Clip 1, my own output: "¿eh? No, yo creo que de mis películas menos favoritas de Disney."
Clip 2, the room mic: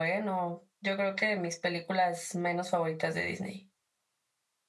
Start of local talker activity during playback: none

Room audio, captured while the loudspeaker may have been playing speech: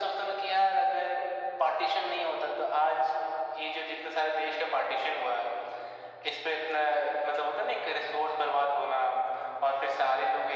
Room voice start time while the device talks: none

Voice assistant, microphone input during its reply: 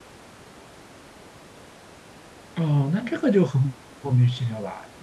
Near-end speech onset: 2.6 s

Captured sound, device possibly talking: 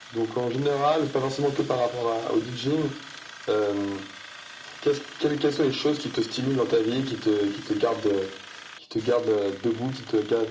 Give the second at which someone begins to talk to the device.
none

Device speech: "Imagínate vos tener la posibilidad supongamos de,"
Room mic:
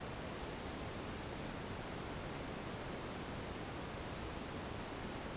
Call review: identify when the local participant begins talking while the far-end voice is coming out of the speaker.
none

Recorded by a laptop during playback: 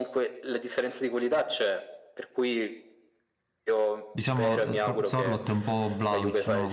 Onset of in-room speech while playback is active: 4.1 s

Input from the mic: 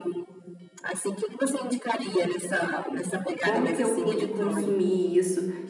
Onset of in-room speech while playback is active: 3.4 s

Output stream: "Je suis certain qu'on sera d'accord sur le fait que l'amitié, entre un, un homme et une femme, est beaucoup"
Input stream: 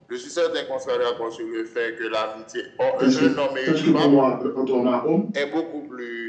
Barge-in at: 3.0 s

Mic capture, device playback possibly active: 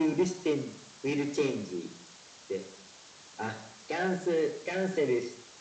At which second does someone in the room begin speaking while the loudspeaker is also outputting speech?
none

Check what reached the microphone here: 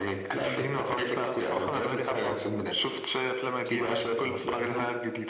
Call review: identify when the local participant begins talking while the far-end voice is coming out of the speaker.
none

